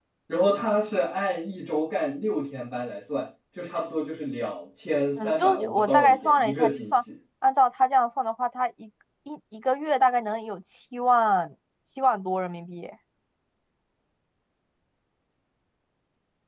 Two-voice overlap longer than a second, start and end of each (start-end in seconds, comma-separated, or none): 5.2-7.0